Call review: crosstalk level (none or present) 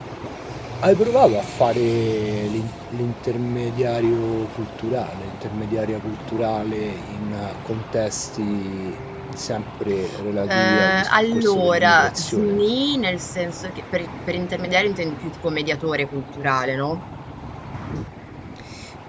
present